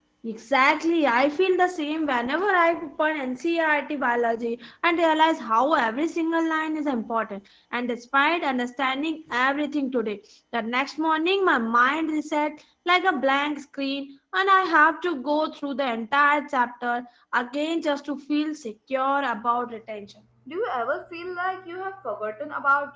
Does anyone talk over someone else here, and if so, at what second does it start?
none

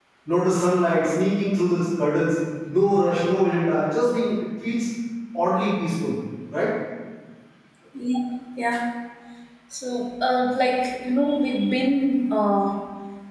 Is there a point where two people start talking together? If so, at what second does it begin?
none

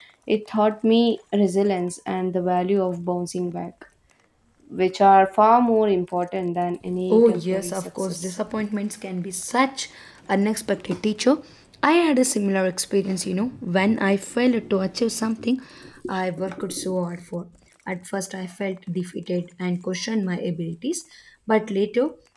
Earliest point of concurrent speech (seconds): 7.1 s

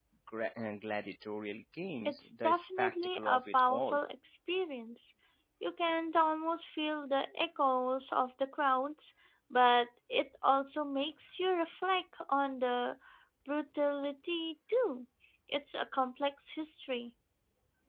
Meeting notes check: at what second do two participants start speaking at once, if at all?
2.0 s

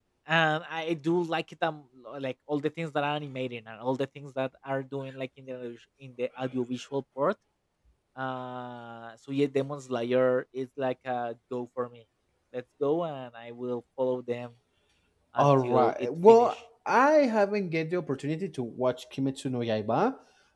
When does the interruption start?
15.4 s

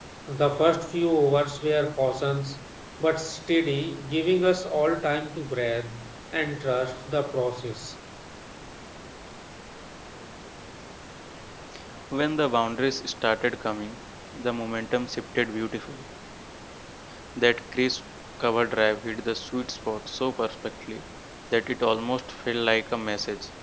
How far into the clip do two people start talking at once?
none

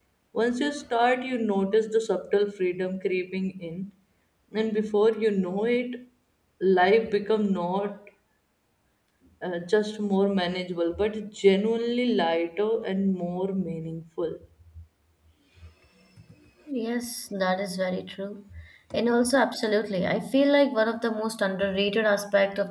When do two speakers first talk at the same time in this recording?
none

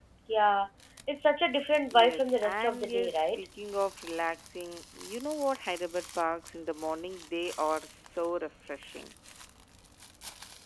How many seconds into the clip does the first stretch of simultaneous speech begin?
1.9 s

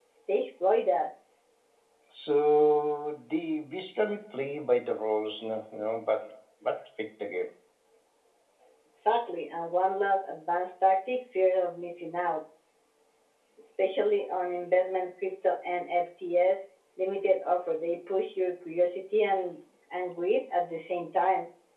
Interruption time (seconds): none

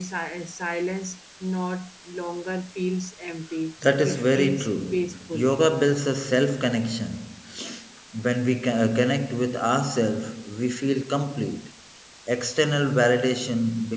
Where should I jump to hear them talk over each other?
3.8 s

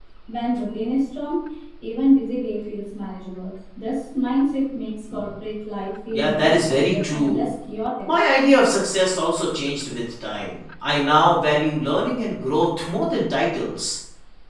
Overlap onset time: 6.1 s

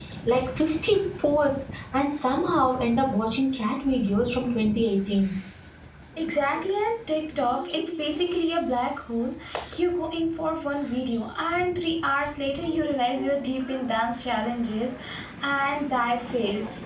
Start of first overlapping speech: none

